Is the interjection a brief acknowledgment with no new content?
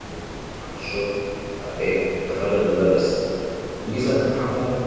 Yes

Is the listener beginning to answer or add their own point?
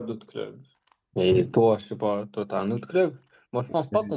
No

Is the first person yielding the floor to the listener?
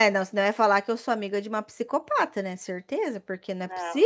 Yes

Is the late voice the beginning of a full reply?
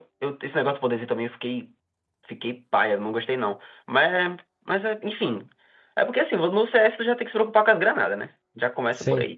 No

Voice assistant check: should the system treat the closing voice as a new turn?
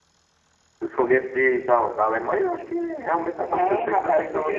Yes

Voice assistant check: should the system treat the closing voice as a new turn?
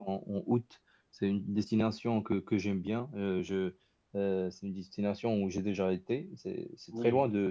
No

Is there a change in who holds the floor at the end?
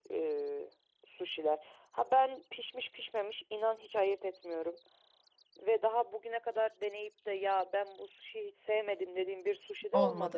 Yes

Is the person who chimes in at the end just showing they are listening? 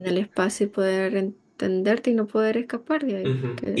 No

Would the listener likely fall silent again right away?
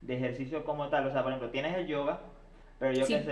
Yes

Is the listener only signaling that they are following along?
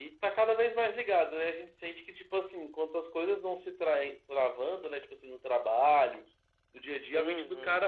Yes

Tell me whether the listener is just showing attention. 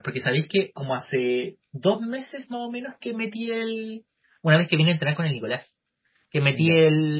Yes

